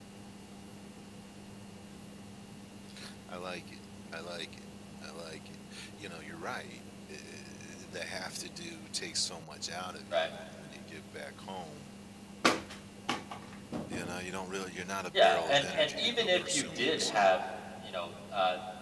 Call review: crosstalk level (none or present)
present